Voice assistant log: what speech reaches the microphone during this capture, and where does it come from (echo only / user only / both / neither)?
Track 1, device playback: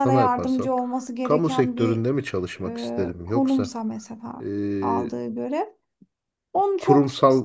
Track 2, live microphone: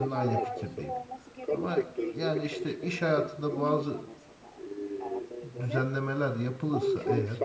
both